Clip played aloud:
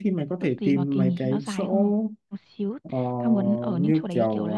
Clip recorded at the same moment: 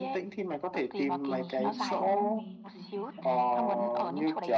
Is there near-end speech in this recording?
Yes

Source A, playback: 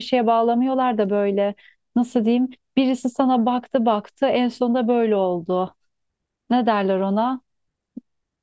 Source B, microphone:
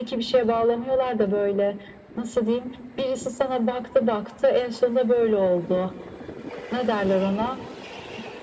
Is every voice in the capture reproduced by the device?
Yes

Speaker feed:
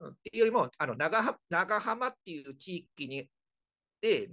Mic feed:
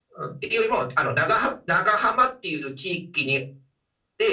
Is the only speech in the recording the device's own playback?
Yes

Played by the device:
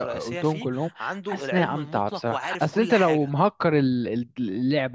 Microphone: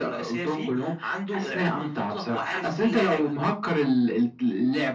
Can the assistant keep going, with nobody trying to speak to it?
Yes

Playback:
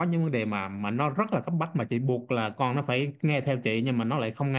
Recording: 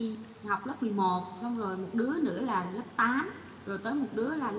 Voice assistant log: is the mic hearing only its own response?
No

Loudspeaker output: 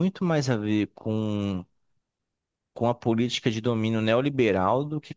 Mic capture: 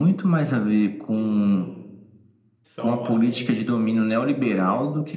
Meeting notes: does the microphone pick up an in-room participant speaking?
Yes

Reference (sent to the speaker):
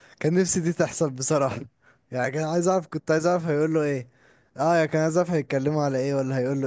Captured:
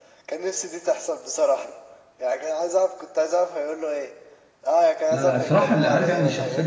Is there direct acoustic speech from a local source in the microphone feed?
Yes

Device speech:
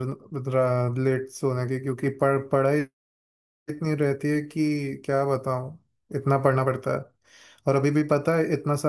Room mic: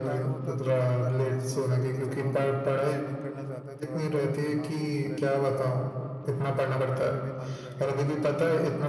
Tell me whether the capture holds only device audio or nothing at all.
No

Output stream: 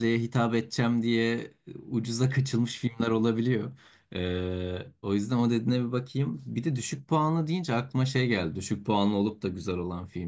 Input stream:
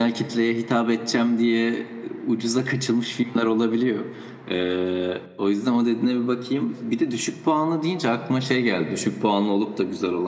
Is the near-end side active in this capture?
No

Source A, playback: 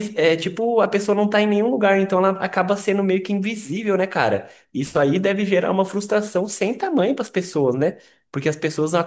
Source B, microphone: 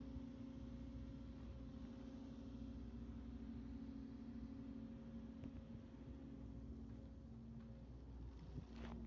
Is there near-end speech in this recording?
No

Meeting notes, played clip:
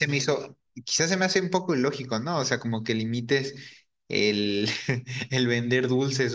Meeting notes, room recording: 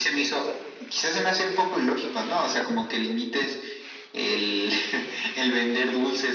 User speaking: No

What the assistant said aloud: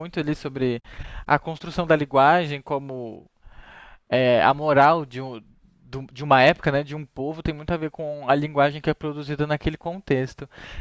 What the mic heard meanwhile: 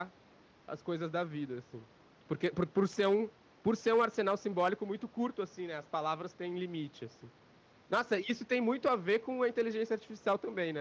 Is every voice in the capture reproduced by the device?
No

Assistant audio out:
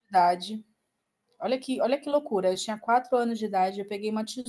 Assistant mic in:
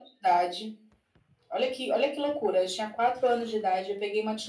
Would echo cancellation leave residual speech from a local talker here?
No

